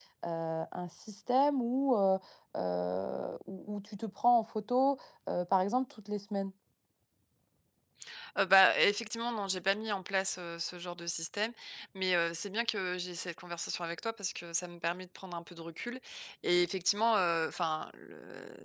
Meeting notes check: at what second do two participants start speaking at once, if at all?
none

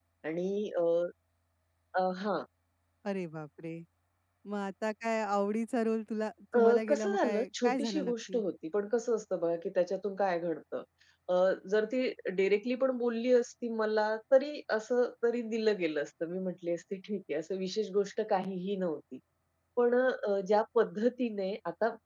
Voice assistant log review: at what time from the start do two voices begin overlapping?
6.5 s

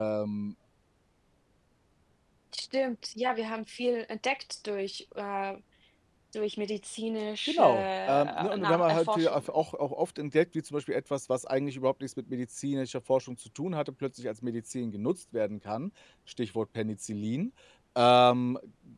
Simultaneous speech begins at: 7.5 s

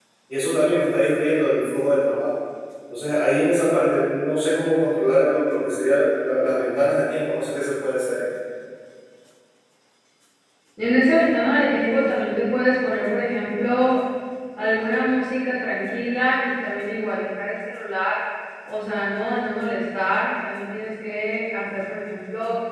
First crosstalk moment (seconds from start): none

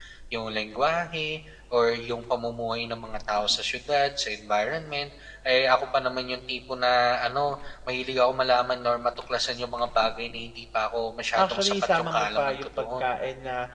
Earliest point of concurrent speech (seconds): 11.3 s

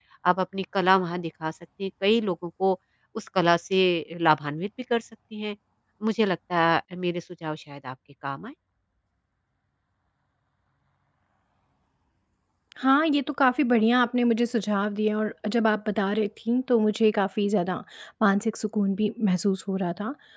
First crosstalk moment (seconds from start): none

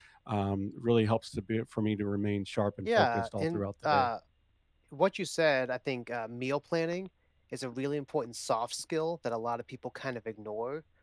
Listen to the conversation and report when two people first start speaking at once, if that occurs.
2.8 s

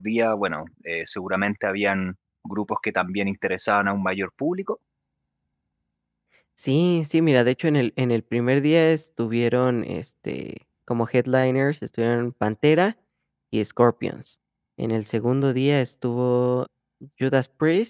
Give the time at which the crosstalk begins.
none

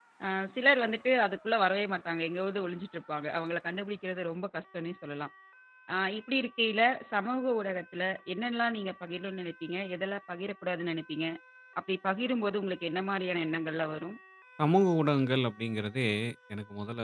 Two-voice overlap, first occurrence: none

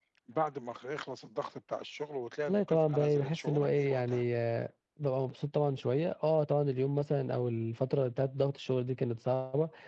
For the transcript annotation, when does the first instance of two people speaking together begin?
2.5 s

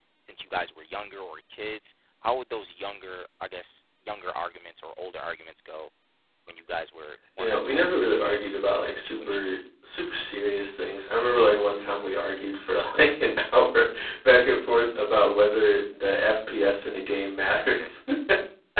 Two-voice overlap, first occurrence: 7.4 s

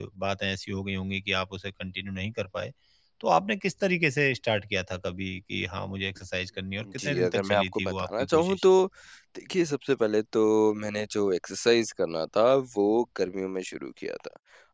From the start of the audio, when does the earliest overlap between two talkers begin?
7.0 s

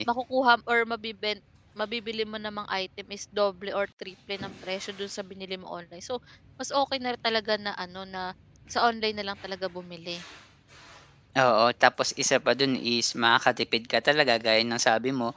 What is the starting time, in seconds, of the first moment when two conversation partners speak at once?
none

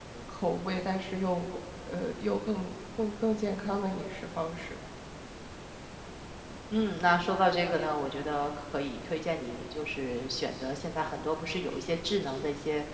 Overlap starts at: none

